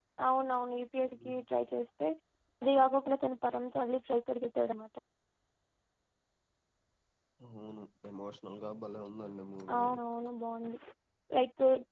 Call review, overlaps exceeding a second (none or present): none